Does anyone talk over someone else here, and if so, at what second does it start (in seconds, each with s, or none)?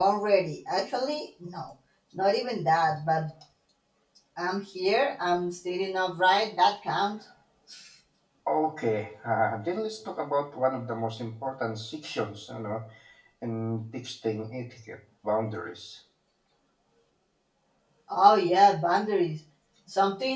none